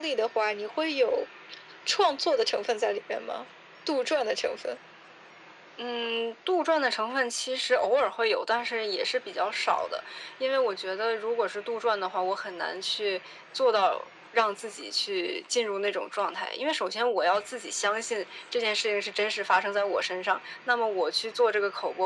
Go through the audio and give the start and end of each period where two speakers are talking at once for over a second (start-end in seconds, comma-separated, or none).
none